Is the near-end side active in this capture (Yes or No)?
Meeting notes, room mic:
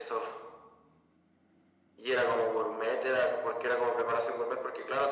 No